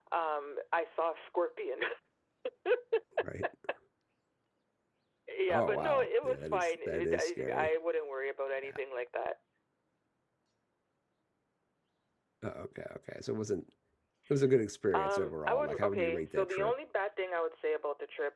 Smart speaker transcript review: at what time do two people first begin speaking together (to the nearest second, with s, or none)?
5 s